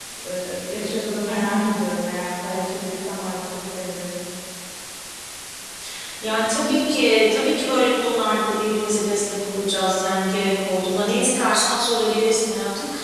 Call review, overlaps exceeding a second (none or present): none